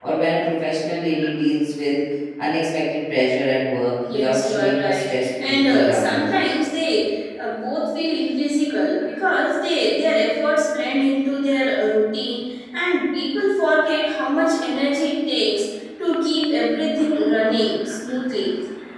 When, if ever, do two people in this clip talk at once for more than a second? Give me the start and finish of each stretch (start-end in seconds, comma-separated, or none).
4.1-6.3